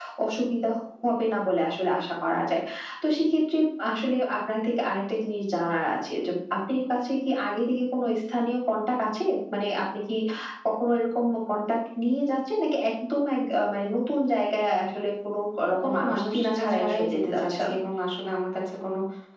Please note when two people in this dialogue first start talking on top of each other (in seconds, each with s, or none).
15.7 s